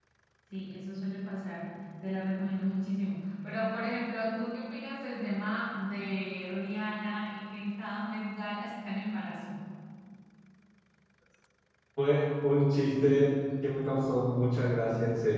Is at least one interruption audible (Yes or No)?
No